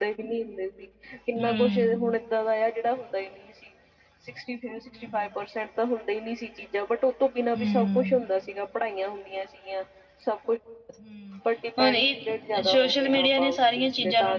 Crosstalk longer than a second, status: present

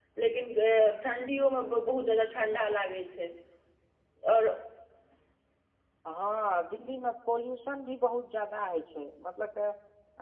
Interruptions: none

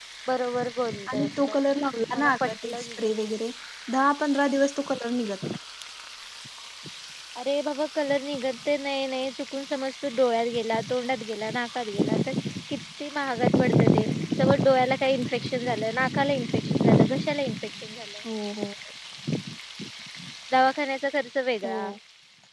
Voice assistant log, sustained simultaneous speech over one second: present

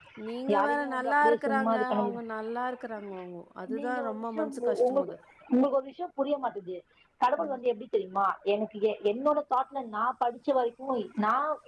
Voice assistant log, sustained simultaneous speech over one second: present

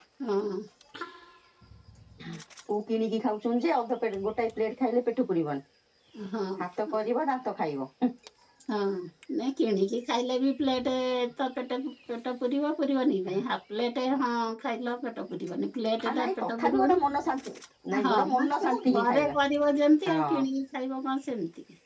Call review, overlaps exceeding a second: present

